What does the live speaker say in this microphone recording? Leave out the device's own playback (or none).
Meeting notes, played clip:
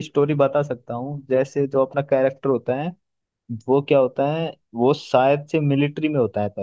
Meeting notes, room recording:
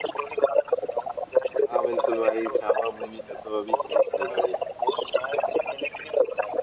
हाँ बिल्कुल भाई छावा मूवी का तो अभी क्रेज चल रहा है यार